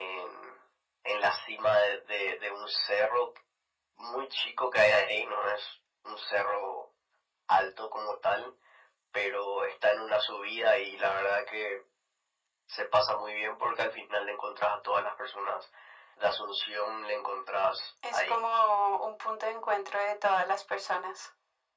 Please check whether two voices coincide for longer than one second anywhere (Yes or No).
No